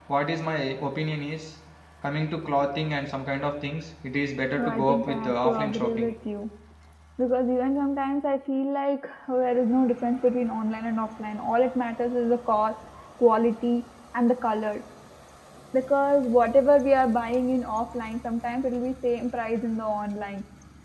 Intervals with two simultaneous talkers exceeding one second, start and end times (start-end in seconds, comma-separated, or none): 4.6-6.1